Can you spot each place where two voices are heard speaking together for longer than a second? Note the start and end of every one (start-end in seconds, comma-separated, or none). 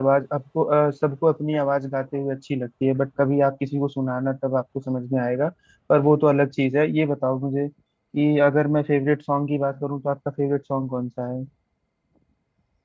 none